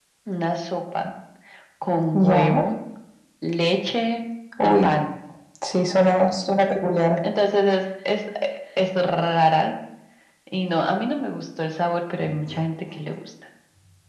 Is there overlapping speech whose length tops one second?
No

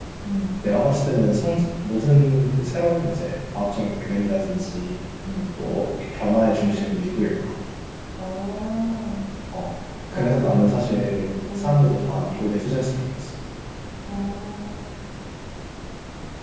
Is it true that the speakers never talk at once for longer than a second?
Yes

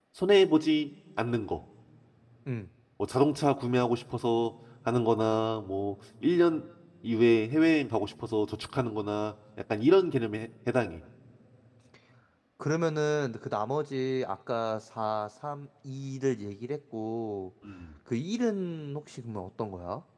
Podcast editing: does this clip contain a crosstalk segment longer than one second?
No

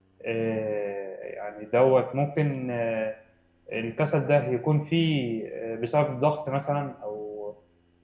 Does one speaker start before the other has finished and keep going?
No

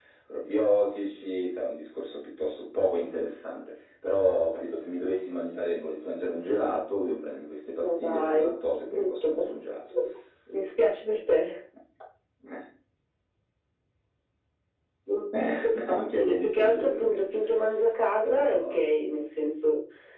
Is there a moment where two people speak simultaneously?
Yes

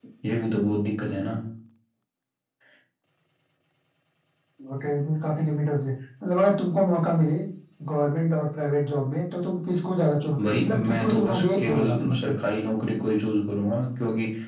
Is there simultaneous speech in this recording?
Yes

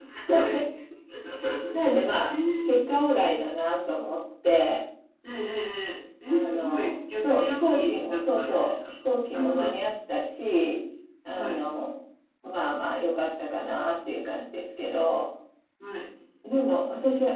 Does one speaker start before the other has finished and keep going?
Yes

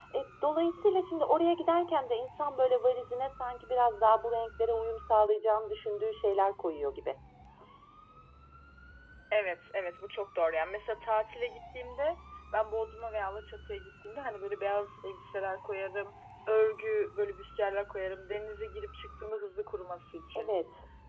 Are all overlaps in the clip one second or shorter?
Yes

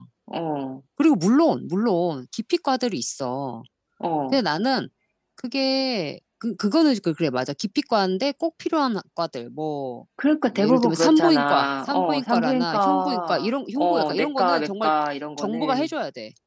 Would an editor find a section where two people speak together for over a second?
Yes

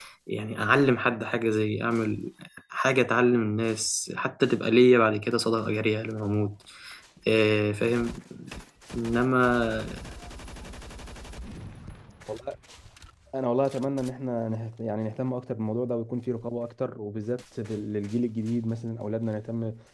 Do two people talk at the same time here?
No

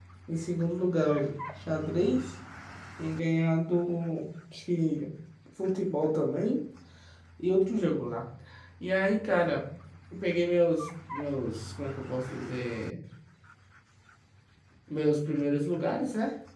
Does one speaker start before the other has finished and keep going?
No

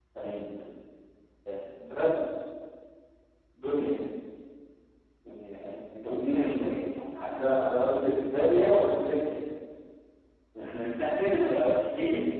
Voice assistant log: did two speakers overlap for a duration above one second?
No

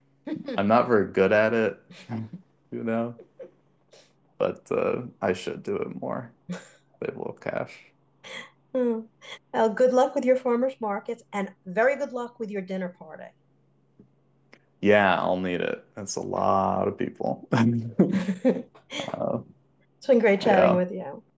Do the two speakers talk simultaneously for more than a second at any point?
No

